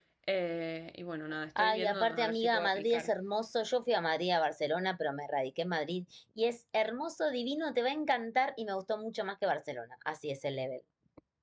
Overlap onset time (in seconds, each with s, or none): 1.6 s